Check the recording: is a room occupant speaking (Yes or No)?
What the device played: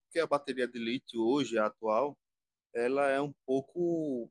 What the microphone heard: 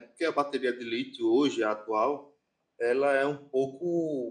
No